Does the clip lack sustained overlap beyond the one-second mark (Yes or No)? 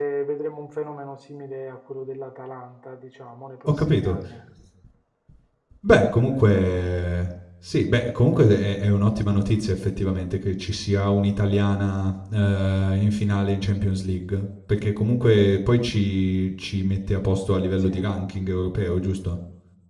Yes